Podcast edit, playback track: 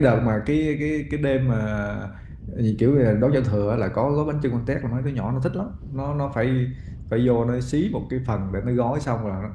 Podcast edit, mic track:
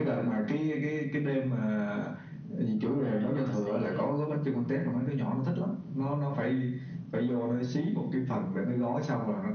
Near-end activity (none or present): present